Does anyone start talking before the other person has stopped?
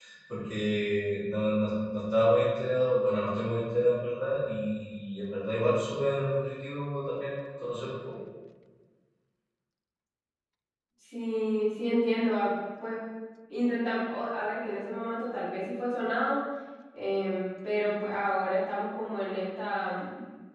No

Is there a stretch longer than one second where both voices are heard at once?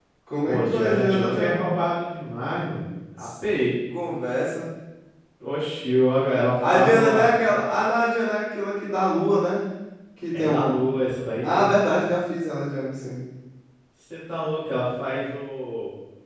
Yes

